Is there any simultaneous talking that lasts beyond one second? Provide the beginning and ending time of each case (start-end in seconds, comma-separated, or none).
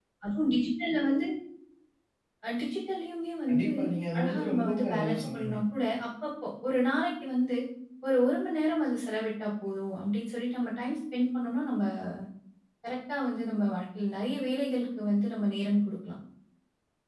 4.2-5.5